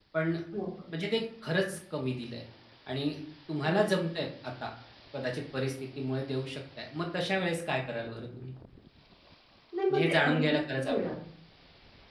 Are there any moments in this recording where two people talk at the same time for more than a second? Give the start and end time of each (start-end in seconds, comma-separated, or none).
9.9-11.1